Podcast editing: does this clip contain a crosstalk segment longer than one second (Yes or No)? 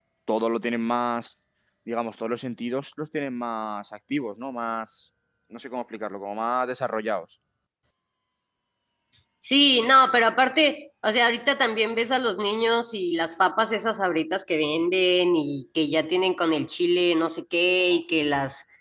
No